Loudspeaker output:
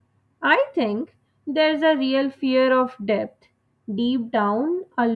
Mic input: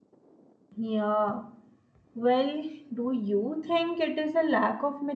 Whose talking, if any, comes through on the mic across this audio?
user only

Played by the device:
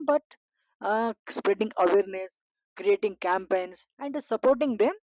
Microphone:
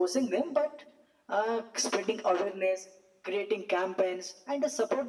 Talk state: echo only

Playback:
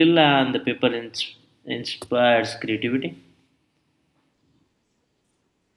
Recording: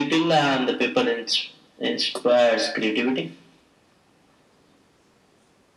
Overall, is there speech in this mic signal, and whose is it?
echo only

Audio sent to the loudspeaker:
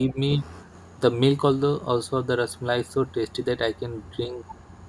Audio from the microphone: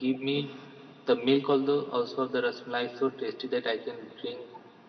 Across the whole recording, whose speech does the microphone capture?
echo only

